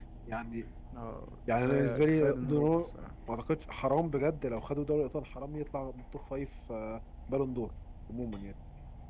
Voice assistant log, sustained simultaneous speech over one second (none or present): present